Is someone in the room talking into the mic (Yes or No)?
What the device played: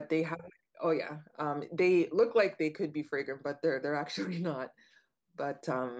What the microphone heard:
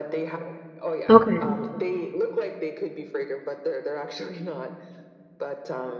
Yes